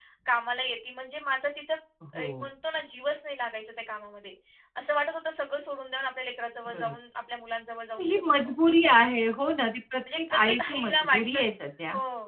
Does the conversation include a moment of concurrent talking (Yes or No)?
Yes